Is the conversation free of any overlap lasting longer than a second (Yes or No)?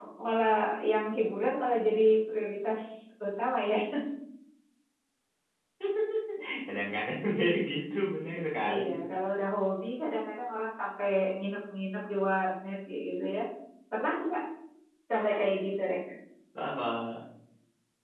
Yes